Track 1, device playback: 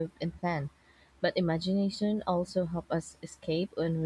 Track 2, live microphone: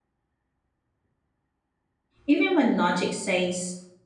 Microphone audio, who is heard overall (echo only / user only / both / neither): user only